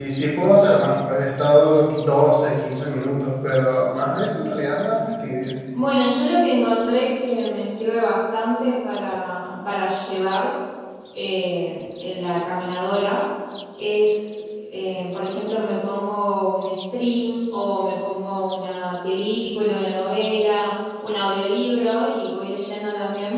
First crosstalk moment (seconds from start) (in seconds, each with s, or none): none